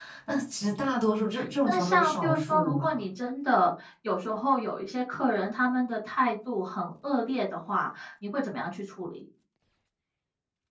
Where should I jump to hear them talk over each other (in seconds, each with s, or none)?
0.9 s